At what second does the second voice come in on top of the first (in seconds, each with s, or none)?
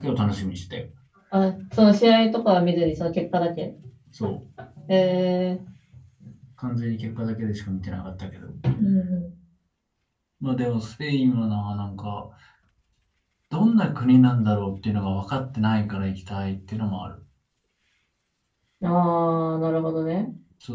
none